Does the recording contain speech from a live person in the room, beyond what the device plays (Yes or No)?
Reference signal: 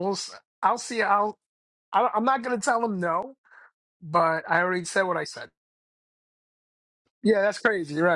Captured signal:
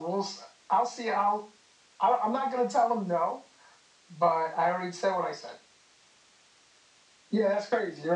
No